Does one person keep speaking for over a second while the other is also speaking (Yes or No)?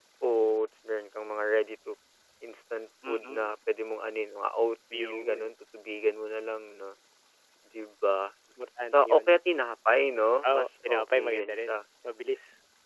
Yes